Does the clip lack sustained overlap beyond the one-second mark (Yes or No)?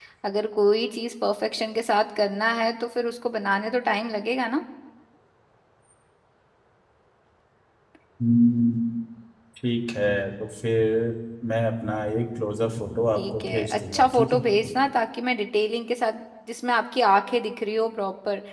No